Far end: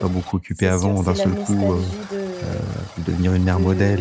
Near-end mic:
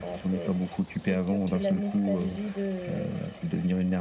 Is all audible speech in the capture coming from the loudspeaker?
Yes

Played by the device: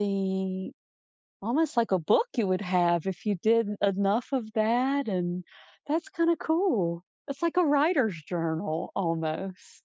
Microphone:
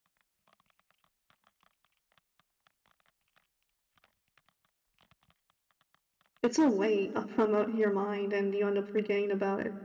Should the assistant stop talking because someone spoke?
Yes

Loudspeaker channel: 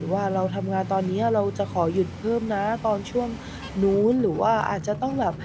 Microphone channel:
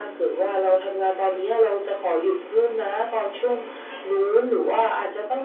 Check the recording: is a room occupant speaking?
No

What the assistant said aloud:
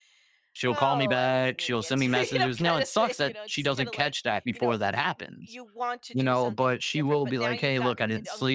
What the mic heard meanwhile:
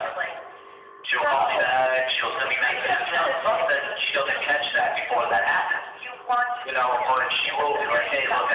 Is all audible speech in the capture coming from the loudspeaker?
No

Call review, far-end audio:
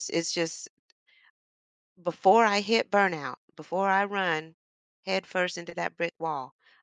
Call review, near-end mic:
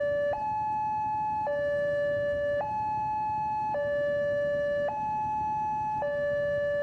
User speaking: No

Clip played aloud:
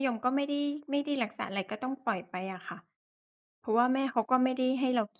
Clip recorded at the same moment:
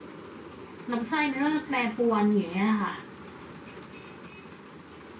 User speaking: Yes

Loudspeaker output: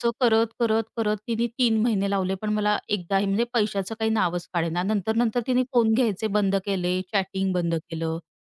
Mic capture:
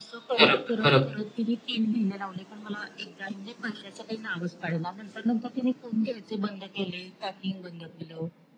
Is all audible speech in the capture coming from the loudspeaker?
No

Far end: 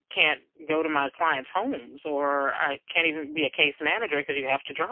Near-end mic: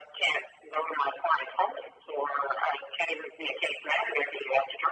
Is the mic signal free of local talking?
Yes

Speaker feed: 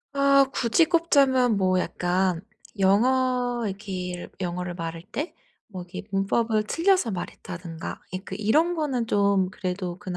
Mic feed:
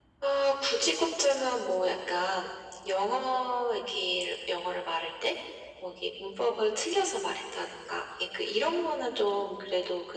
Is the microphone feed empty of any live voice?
Yes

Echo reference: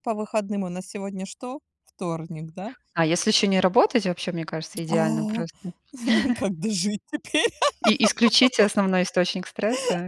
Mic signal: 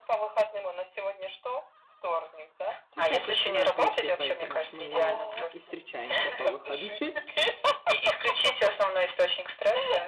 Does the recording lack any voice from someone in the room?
No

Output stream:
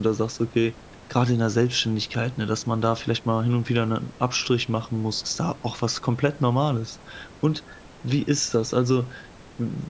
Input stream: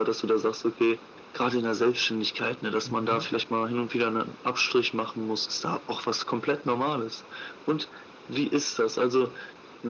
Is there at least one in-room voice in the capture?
Yes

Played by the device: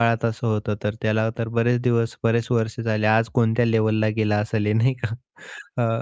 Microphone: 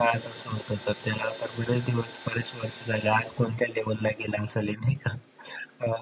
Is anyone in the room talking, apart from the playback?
No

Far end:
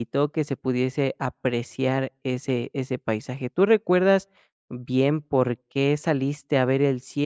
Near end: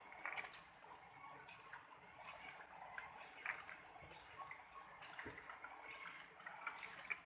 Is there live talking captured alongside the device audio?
No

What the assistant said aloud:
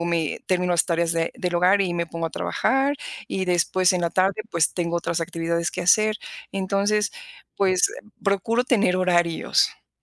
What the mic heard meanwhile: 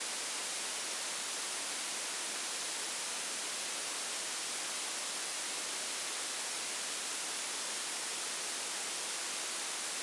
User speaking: No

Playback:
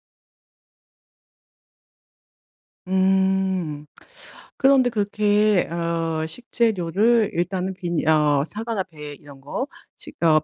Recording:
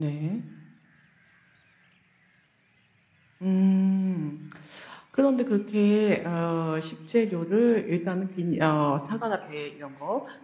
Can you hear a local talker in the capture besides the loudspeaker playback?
No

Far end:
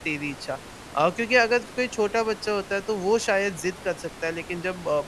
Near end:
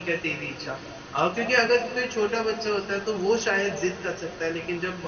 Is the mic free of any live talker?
Yes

